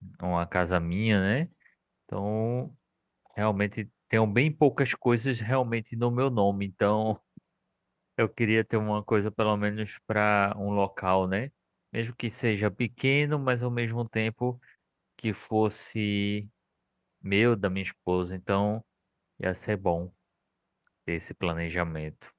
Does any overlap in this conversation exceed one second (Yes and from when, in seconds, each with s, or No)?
No